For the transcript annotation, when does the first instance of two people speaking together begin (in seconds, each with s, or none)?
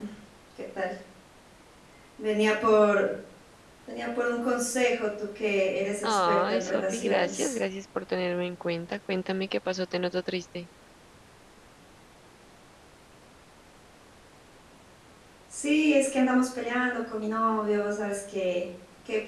6.0 s